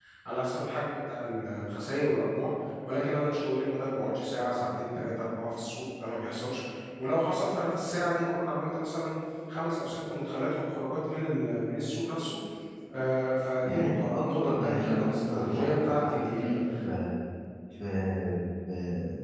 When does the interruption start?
13.6 s

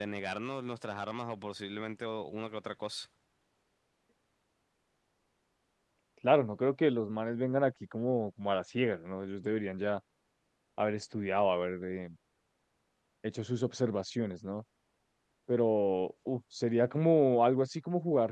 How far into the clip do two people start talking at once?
none

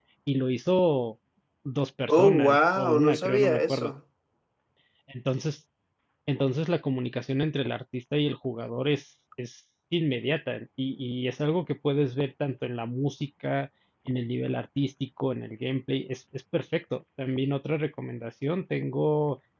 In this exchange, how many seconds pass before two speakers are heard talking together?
2.1 s

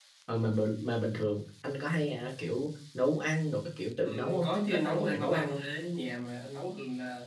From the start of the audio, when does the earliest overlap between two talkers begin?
4.0 s

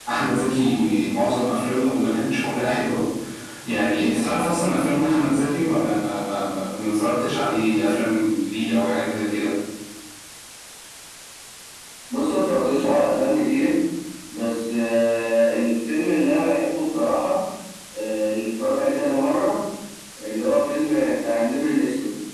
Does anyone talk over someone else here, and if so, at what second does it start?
none

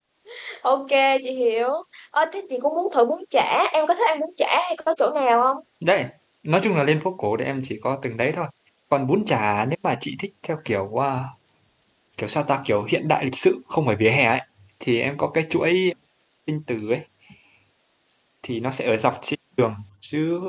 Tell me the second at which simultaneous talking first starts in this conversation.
none

